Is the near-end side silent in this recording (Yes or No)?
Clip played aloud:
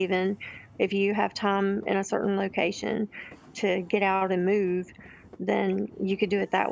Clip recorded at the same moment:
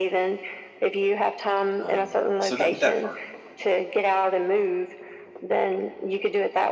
No